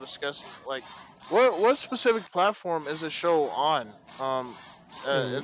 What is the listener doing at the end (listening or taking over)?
listening